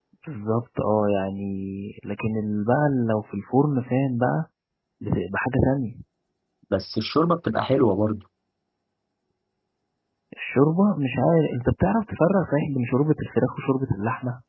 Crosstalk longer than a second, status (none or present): none